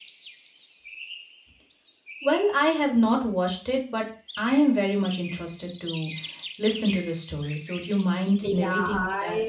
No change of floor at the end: No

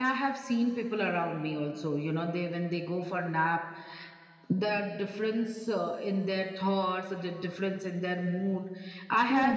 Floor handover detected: Yes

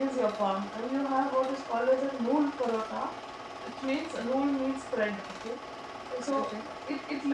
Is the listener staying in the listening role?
Yes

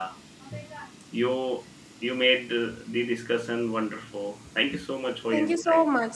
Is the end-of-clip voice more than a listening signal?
Yes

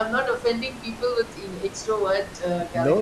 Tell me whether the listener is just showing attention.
No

